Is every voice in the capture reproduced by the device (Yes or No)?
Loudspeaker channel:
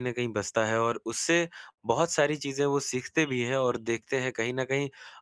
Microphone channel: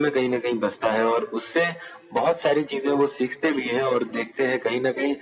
Yes